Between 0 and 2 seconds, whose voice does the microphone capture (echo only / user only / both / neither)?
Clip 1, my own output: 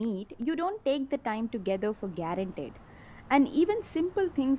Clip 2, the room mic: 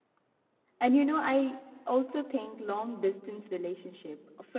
user only